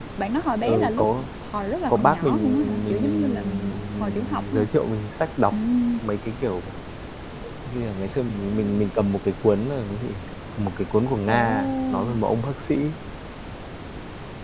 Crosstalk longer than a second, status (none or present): present